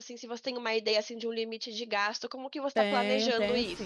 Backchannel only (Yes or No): No